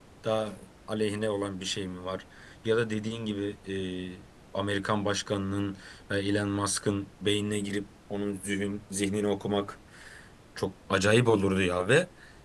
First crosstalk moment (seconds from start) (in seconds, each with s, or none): none